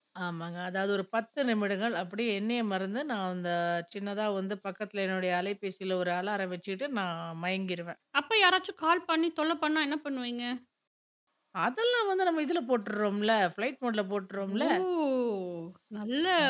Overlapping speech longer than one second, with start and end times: none

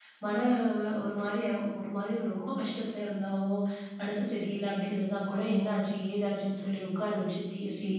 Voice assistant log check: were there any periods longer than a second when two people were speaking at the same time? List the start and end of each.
none

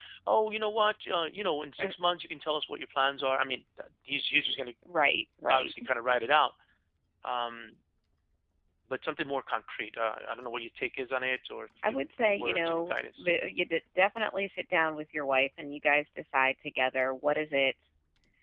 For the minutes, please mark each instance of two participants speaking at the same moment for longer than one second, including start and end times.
11.8-13.3

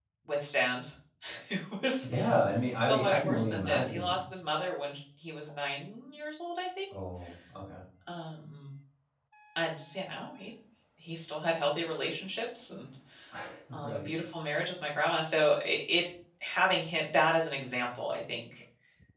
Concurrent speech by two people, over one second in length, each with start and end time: 2.9-4.2

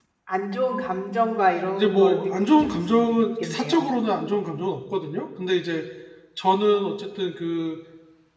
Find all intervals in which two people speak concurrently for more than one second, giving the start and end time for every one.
1.8-3.9

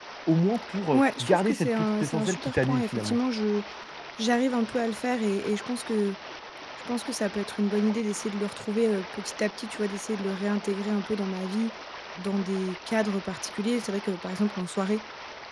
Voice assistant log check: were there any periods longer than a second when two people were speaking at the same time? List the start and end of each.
0.9-3.2

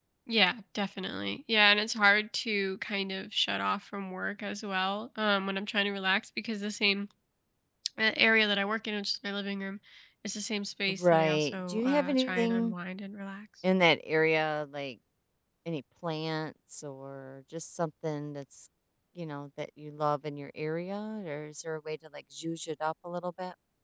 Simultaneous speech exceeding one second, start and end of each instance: 10.9-12.7

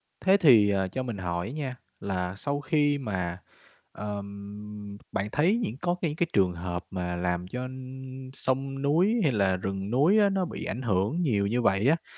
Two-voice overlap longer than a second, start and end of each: none

